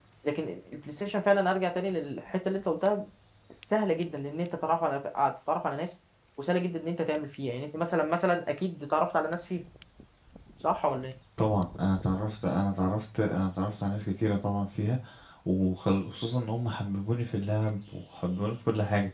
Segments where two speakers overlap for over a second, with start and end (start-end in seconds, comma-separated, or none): none